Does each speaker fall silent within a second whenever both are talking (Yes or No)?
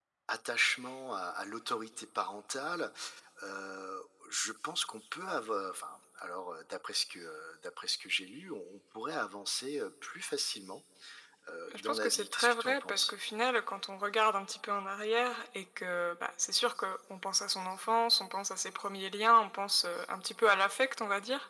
No